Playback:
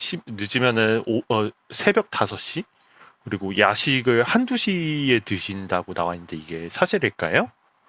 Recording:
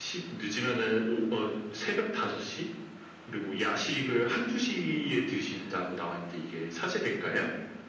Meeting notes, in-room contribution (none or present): none